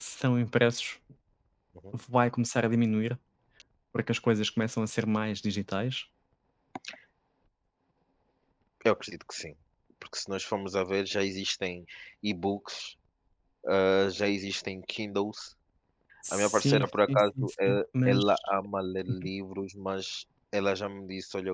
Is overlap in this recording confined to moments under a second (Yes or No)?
No